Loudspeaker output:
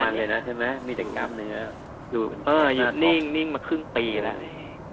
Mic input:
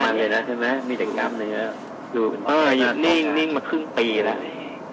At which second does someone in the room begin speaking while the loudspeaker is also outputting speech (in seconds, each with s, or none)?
2.4 s